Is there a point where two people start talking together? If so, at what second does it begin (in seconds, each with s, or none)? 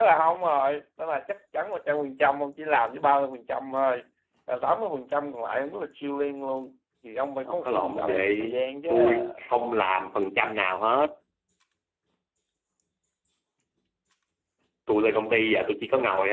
7.5 s